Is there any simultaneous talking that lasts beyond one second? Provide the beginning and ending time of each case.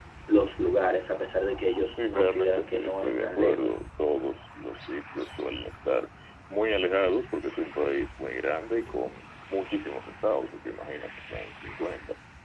1.9-3.8

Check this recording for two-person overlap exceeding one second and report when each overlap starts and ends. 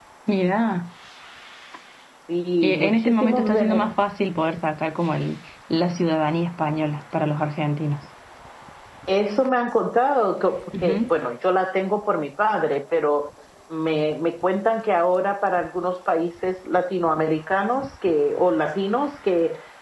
2.6-3.9

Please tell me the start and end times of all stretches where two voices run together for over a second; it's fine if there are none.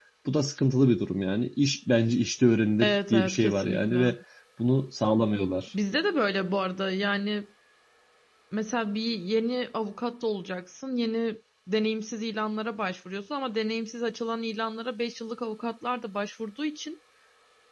2.8-4.2

